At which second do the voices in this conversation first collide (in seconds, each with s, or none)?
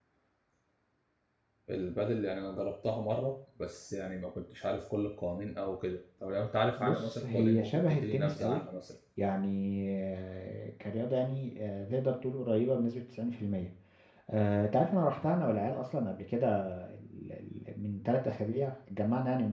6.8 s